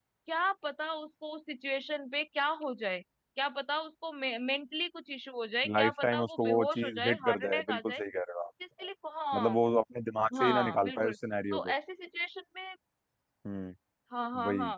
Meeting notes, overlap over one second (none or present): present